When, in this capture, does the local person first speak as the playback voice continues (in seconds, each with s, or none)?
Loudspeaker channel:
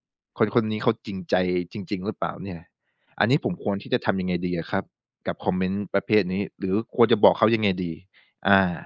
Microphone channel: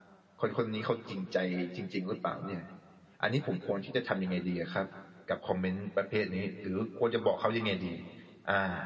none